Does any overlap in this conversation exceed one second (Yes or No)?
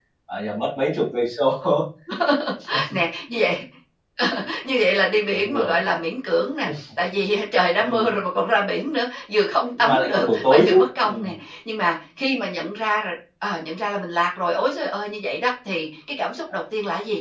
Yes